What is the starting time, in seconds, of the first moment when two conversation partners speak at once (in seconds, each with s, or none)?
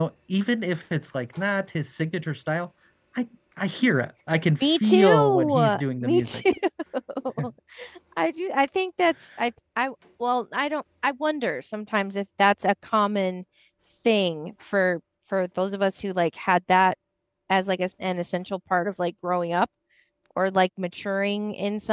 4.6 s